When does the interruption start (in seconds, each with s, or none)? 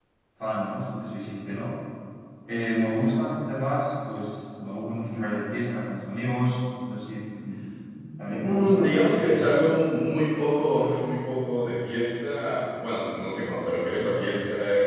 8.2 s